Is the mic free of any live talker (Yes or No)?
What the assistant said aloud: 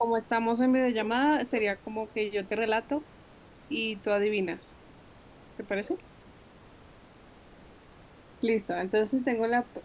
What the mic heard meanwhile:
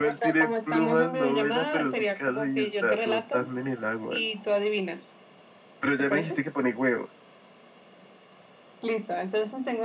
No